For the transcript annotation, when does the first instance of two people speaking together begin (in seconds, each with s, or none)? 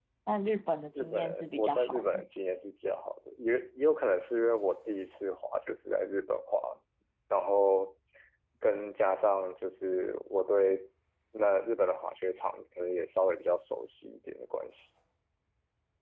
1.0 s